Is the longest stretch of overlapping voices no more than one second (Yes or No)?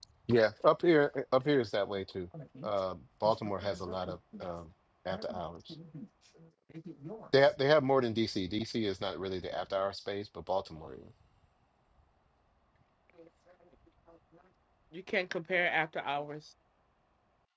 Yes